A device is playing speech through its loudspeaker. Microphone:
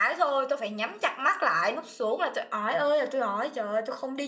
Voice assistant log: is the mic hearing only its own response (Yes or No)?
No